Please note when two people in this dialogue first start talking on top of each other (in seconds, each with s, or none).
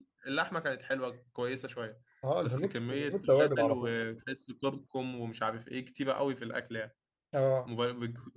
2.4 s